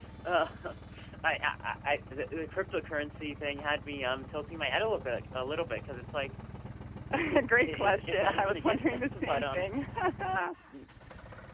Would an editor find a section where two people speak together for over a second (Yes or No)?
Yes